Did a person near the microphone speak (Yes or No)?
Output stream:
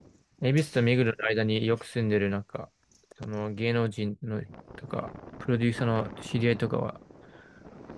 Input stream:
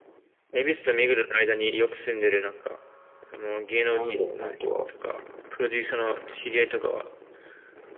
Yes